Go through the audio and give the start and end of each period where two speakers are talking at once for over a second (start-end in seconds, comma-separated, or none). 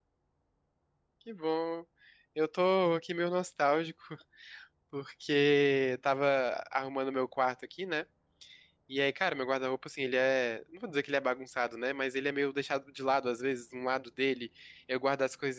none